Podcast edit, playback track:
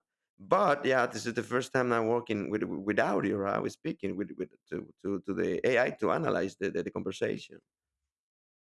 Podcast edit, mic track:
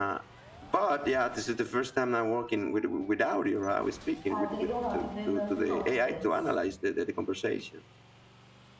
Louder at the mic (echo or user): echo